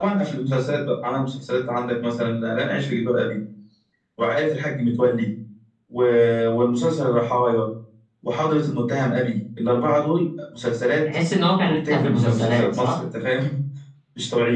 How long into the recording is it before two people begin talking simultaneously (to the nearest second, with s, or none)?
12 s